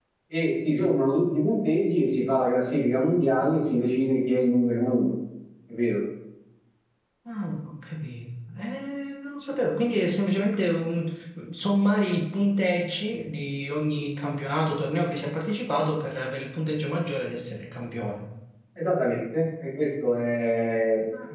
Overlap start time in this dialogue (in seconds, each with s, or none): none